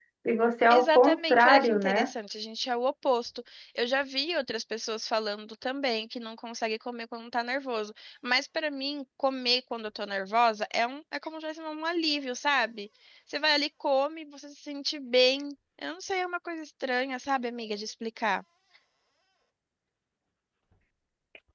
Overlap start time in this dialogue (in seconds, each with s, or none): 0.7 s